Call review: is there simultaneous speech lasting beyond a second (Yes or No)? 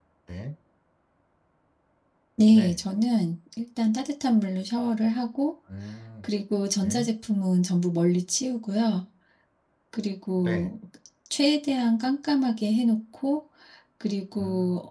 No